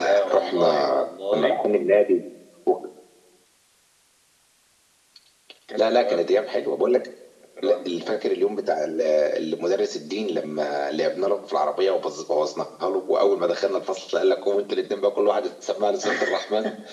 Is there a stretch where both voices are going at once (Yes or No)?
Yes